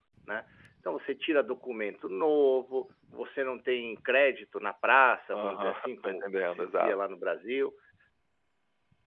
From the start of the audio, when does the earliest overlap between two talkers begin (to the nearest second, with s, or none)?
5 s